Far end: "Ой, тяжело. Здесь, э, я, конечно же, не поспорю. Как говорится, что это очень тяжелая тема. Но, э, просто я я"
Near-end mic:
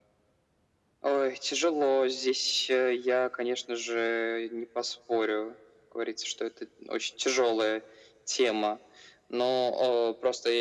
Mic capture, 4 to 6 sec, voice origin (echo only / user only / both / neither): echo only